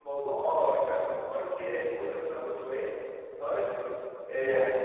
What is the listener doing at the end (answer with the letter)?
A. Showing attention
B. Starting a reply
A